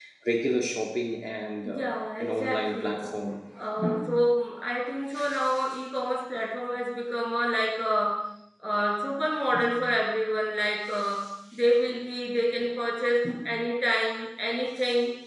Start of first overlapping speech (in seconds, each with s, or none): 1.6 s